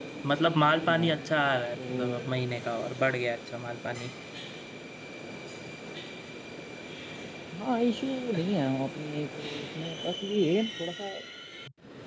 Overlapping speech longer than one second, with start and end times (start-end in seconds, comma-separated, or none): none